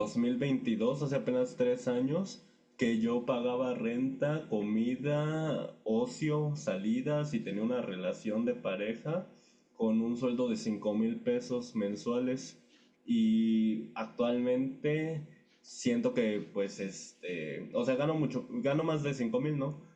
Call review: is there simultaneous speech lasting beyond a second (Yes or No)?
No